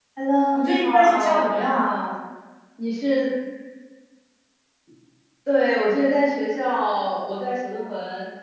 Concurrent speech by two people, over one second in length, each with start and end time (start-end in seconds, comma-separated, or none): 0.5-1.9